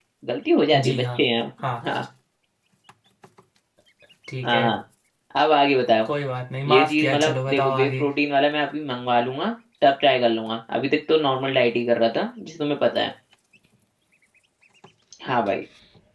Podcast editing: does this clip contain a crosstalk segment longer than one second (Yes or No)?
Yes